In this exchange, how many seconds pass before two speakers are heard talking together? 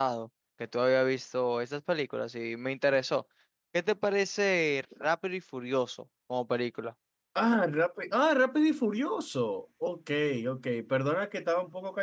none

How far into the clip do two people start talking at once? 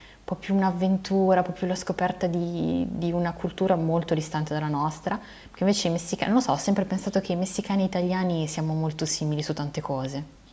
none

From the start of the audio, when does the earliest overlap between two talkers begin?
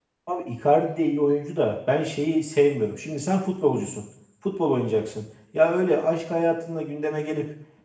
none

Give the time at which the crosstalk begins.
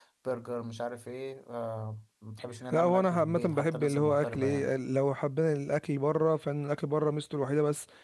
2.7 s

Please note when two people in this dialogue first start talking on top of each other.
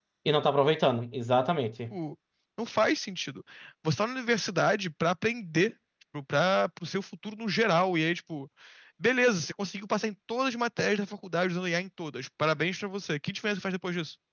none

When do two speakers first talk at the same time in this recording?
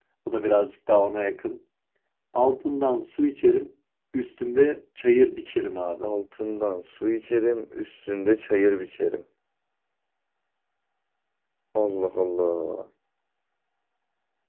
none

